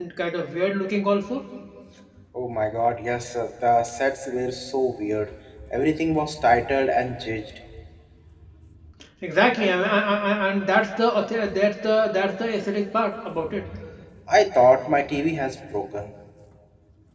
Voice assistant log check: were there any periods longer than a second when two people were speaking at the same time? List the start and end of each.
none

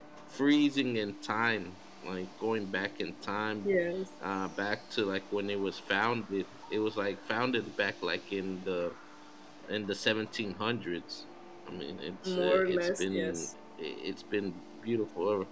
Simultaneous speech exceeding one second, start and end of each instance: 12.3-13.5

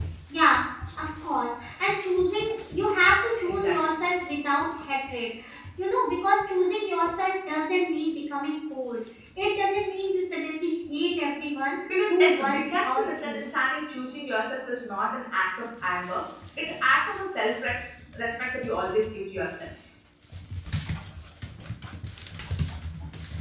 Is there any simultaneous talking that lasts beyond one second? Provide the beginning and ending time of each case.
12.1-13.5

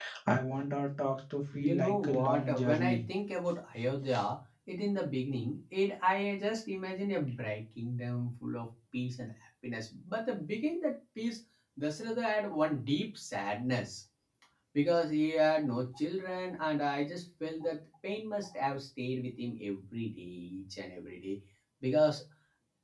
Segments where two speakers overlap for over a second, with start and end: 1.7-3.0

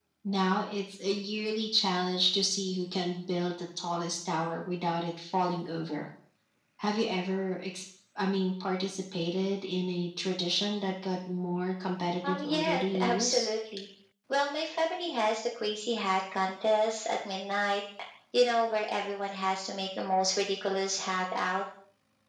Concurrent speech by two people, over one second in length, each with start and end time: 12.2-13.5

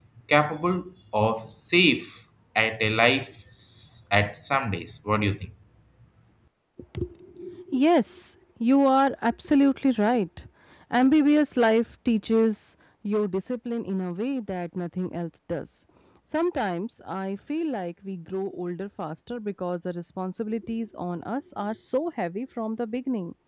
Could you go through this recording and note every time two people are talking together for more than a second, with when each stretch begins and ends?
none

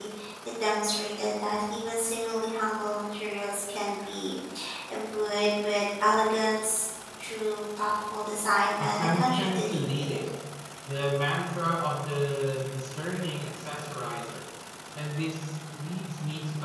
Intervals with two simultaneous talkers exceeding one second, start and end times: 8.8-10.2

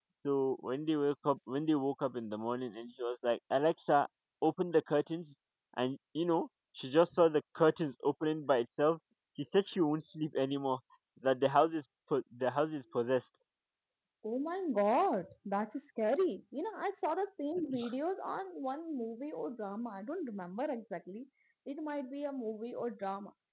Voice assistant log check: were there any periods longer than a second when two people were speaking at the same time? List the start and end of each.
none

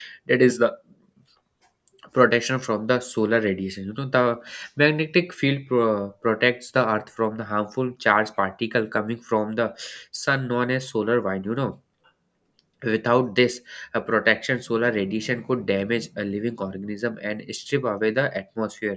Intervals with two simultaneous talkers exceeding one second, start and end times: none

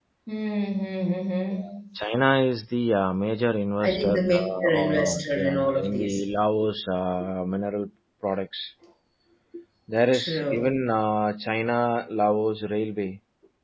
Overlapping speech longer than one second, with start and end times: 3.9-6.2

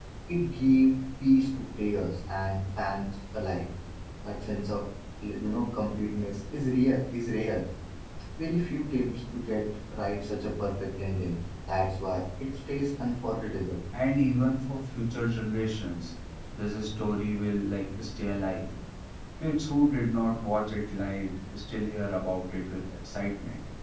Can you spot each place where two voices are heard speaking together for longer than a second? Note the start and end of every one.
none

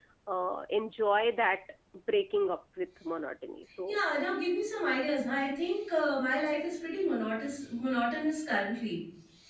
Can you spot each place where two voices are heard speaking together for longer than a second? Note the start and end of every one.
none

